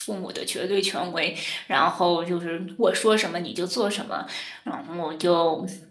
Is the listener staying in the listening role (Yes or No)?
Yes